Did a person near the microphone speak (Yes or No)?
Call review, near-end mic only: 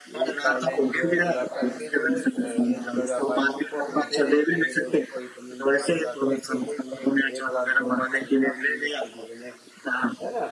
Yes